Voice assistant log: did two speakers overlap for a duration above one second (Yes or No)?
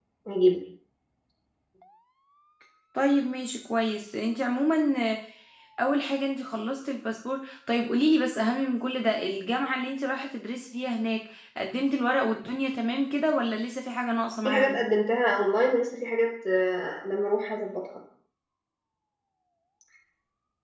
No